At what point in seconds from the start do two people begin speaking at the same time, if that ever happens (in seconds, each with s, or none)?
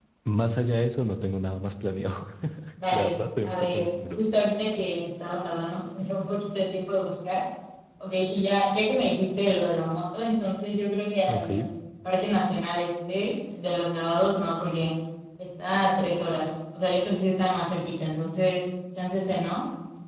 2.9 s